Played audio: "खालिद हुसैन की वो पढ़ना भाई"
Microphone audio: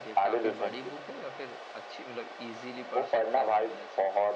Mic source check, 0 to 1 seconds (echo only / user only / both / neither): both